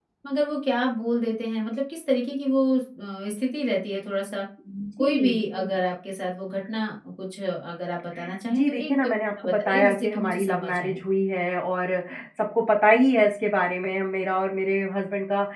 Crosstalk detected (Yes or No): Yes